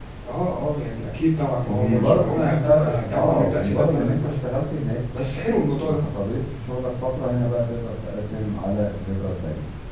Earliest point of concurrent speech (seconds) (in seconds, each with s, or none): 1.6 s